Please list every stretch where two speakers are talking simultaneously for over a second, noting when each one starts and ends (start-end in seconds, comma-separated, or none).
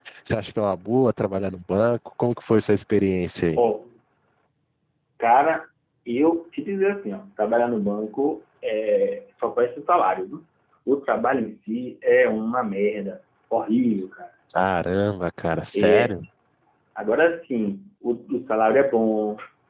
none